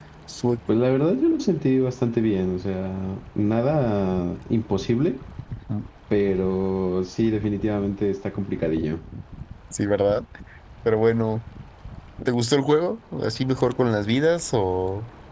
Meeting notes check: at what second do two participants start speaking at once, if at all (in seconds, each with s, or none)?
none